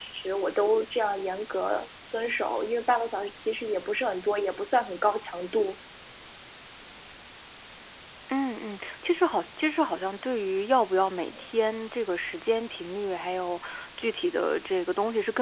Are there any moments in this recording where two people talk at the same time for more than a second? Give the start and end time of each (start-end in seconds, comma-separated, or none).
none